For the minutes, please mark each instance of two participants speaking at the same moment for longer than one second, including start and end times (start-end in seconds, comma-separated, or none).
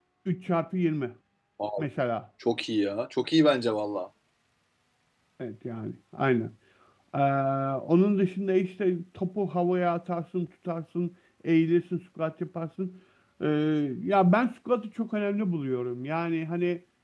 none